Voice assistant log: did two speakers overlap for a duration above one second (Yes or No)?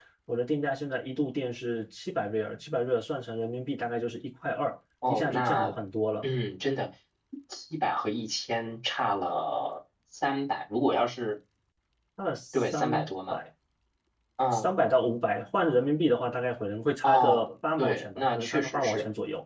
Yes